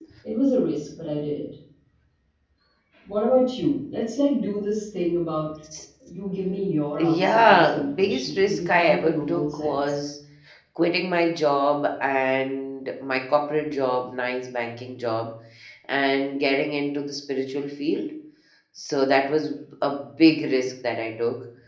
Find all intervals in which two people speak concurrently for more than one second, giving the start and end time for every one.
7.2-9.8

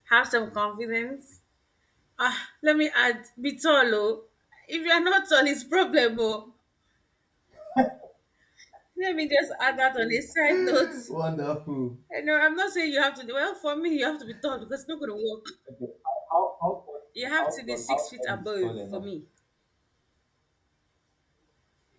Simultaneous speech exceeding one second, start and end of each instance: 17.4-19.0

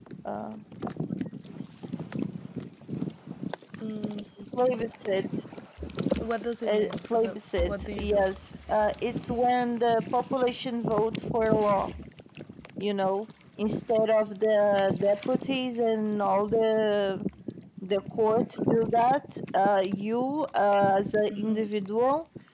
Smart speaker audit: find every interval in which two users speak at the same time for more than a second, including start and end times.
6.7-8.3

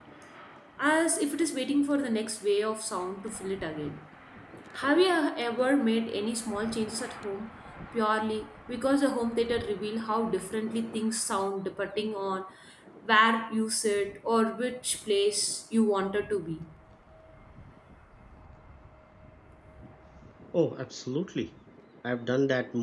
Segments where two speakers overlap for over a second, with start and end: none

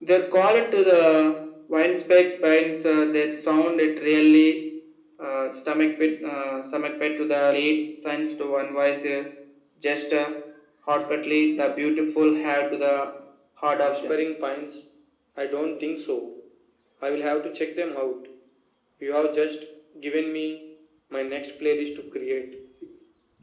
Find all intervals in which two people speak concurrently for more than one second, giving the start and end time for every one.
none

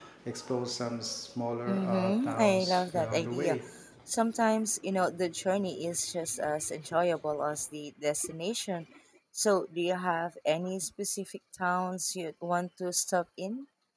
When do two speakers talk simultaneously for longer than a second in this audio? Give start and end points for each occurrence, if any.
1.7-3.6

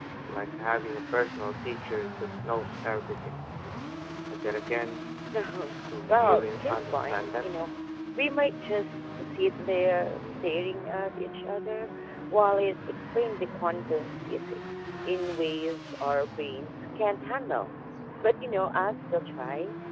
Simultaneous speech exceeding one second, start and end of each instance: 6.1-7.6

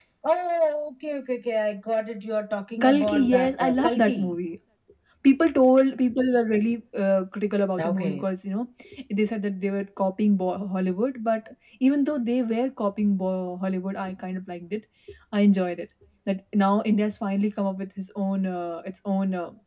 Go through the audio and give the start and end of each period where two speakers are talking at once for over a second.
2.8-4.4

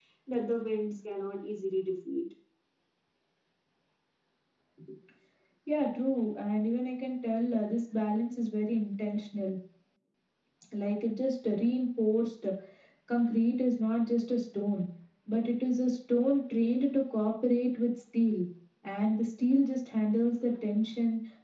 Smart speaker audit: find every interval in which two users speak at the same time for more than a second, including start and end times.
none

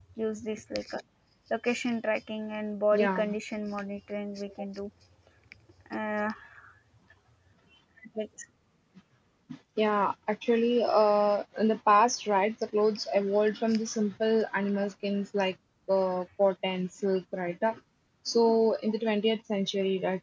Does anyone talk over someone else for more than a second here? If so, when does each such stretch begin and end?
none

